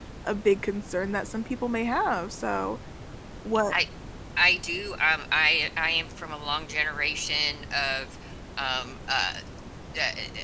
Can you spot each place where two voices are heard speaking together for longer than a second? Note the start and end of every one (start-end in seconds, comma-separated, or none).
none